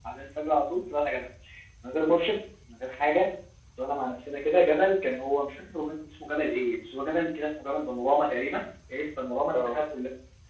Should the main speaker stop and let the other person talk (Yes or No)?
No